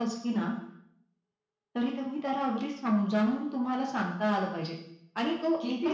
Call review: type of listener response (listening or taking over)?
taking over